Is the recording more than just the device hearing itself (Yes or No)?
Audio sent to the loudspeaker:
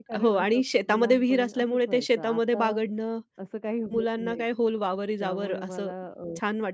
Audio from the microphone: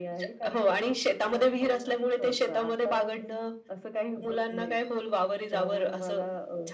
No